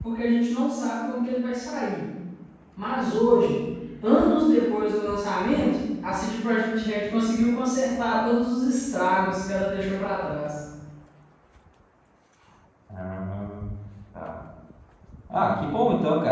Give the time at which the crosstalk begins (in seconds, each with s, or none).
none